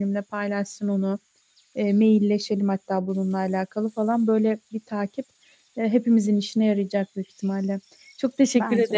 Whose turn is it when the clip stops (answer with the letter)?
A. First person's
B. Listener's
A